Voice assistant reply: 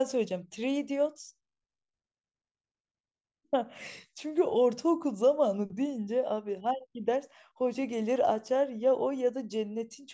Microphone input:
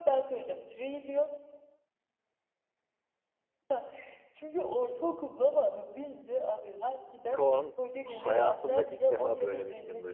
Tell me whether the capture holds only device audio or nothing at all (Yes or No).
No